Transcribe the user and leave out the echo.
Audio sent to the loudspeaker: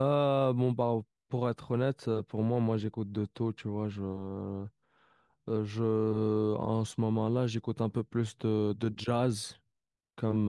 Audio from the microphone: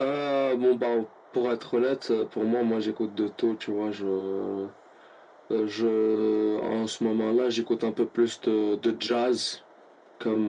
none

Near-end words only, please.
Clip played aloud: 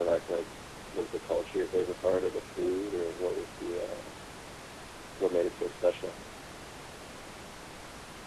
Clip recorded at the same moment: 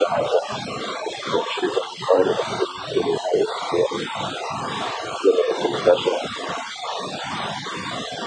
none

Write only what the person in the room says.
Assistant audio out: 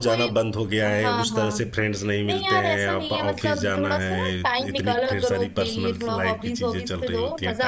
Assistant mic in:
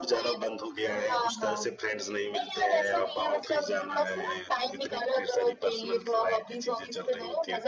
none

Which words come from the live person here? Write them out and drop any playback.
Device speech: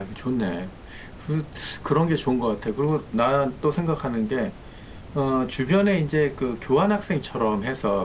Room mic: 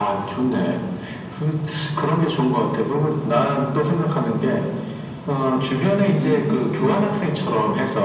음음음 그렇대.

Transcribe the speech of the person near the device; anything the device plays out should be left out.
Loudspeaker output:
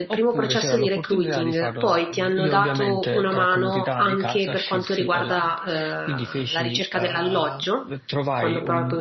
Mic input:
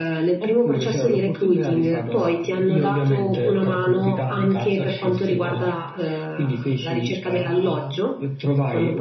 none

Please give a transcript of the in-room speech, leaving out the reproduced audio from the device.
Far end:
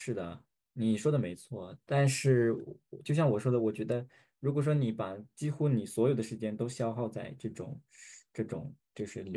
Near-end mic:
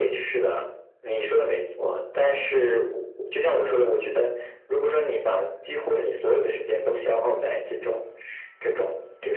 none

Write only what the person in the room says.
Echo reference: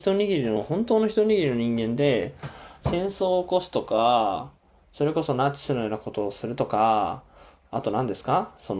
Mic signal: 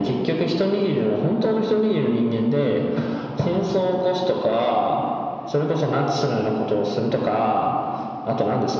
none

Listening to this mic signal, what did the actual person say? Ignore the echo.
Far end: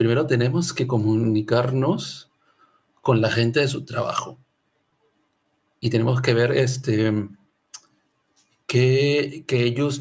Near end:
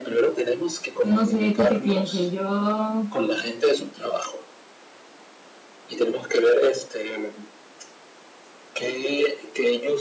pues no sé, ¿tú qué pienses? Yo,

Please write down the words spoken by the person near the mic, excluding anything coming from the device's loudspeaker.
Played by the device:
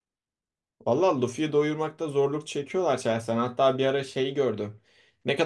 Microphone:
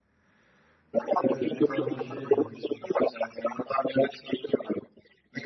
Evet o tarz bir şeydi.

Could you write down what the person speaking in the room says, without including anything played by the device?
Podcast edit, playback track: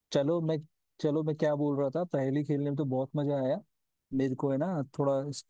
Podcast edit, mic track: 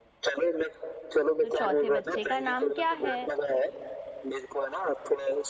तो चौथे बच्चे का नाम क्या है

